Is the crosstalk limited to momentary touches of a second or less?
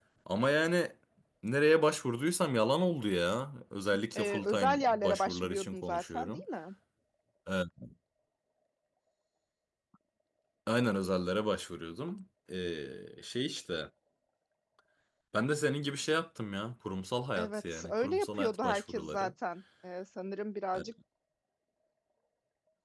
No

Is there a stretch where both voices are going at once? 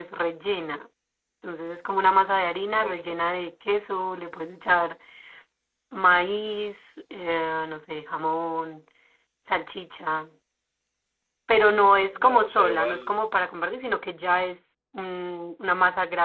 Yes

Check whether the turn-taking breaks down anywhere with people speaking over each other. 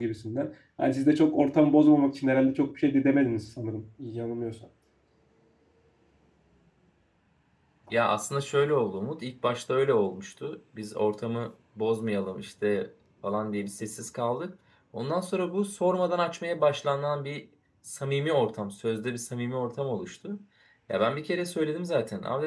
No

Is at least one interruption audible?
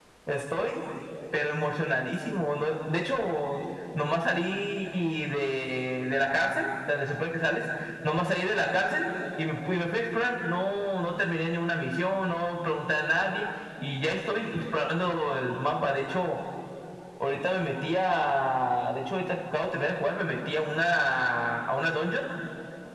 No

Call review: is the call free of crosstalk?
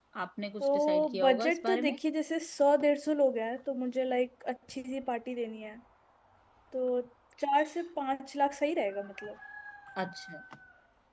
No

